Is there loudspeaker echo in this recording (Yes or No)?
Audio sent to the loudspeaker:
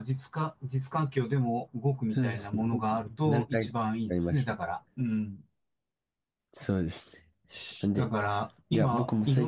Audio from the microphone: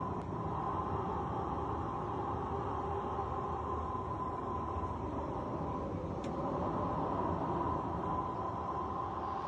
No